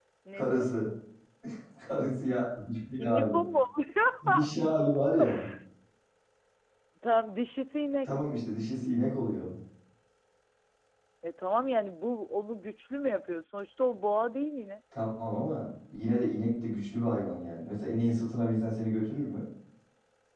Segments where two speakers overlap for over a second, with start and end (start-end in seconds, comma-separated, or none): none